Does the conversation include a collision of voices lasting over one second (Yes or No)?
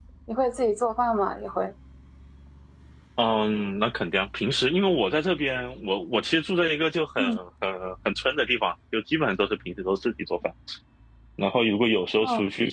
No